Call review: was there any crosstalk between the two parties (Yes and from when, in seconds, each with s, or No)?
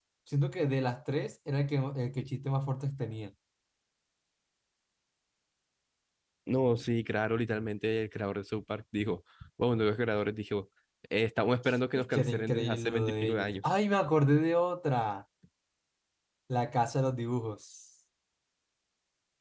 Yes, from 11.9 s